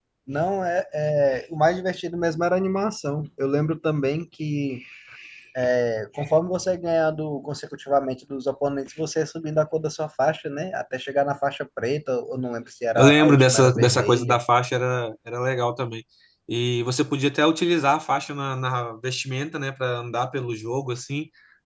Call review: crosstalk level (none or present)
present